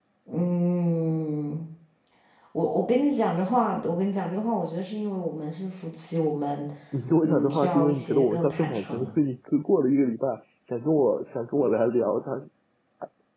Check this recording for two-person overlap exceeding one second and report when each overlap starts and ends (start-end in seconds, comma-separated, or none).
7.2-9.1